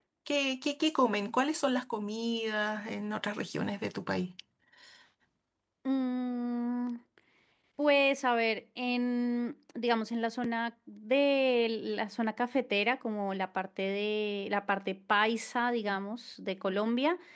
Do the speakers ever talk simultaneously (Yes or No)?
No